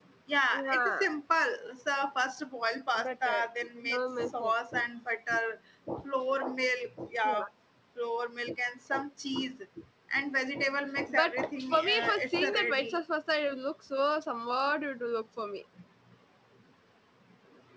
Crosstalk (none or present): present